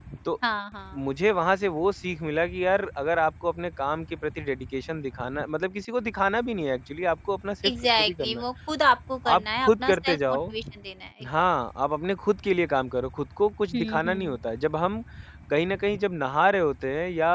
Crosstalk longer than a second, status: present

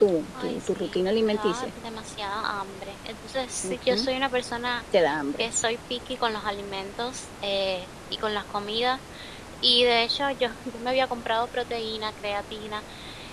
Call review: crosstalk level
present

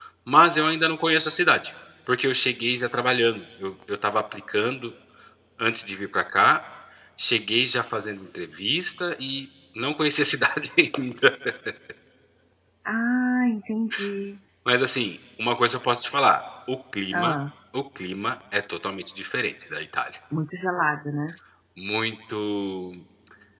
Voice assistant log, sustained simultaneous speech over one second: none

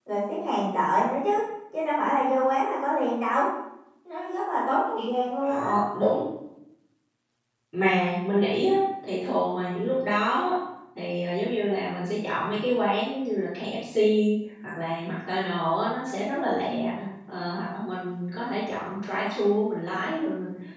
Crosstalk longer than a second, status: none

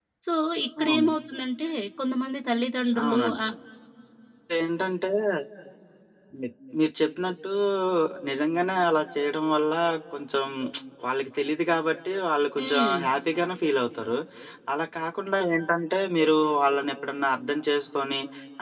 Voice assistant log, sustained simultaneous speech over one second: none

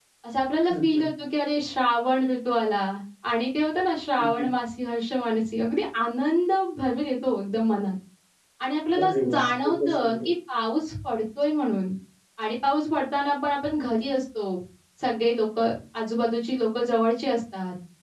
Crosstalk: present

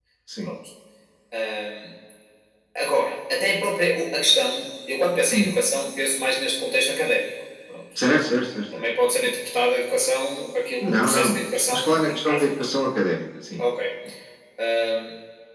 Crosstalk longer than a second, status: present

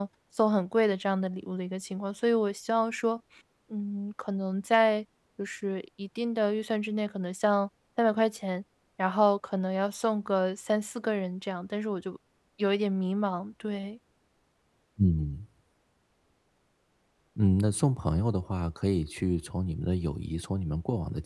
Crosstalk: none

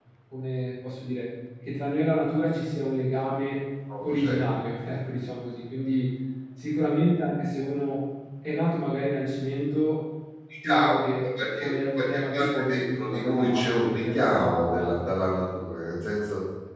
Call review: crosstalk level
present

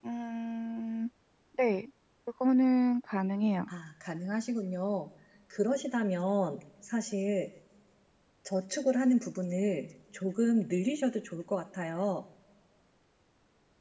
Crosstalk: none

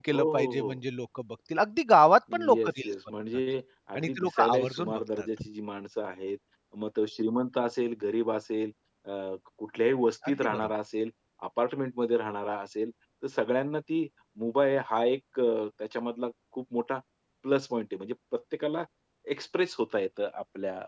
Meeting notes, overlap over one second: present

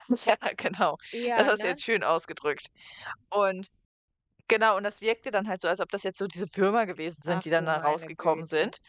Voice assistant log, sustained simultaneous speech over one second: present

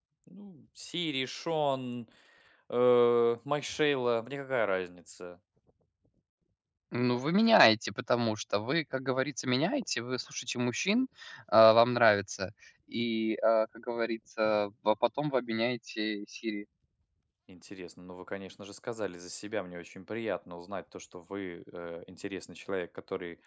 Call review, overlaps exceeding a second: none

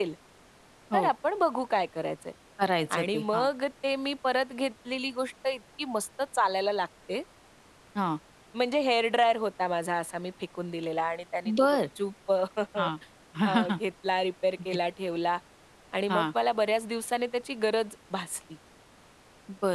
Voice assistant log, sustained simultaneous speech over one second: none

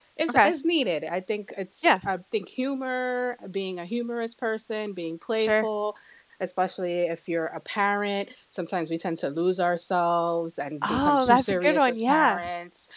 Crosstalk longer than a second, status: present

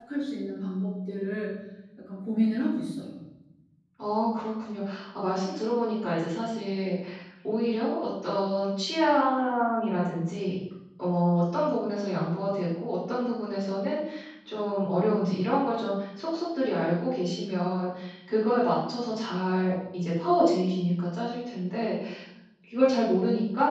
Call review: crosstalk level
none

